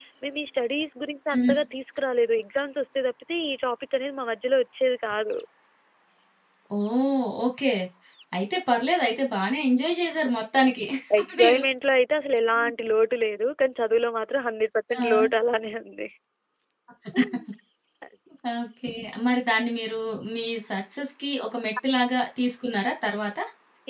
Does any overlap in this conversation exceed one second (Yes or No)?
No